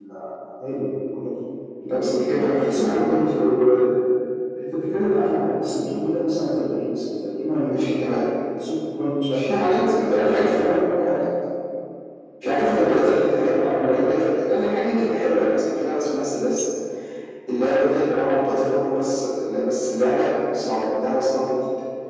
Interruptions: present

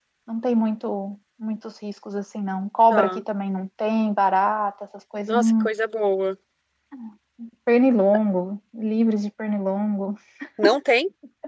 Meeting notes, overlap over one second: none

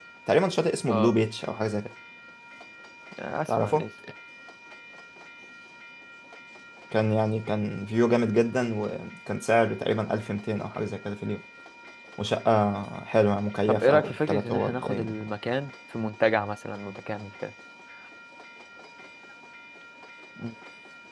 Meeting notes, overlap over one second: present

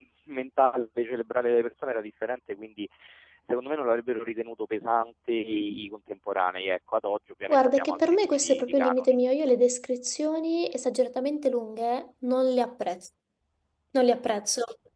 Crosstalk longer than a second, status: present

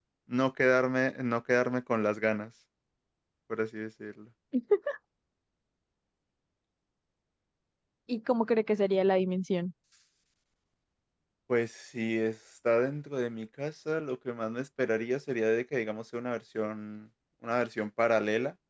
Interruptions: none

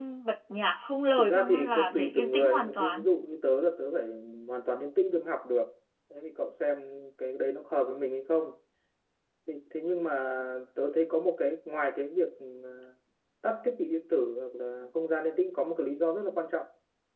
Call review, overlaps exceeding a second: present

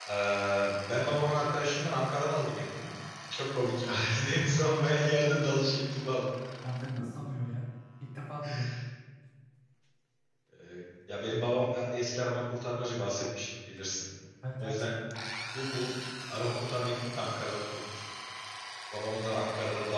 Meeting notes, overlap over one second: none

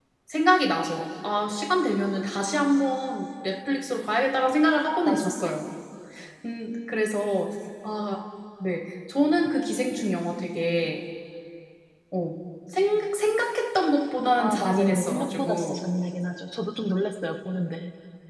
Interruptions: present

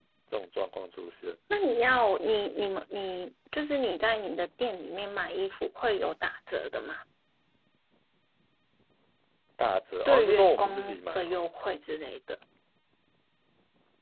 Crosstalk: present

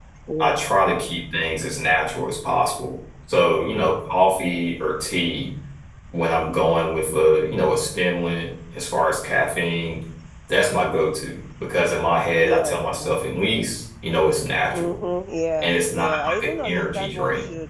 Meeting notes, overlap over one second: present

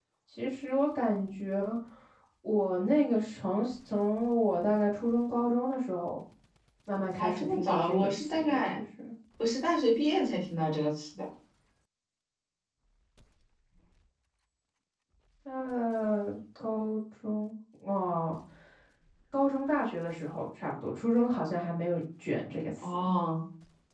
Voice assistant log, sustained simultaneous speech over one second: present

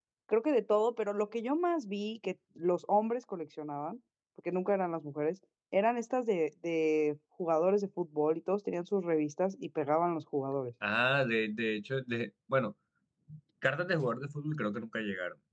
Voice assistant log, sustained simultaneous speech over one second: none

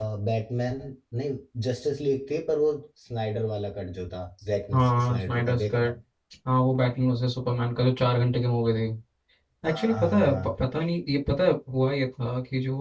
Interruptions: present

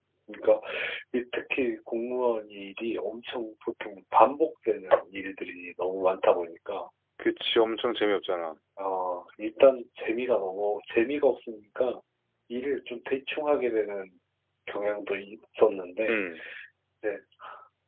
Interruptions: none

